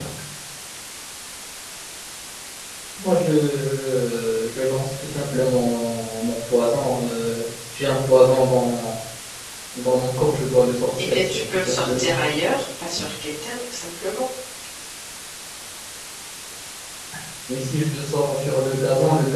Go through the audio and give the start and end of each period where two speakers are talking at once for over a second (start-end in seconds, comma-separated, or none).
11.0-12.3